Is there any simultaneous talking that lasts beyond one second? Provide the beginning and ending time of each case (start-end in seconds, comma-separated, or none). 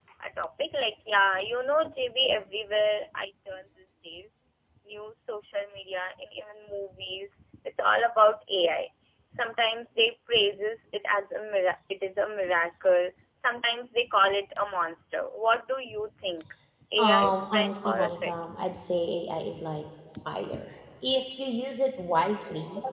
17.0-18.3